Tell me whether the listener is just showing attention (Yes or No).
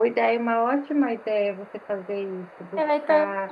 No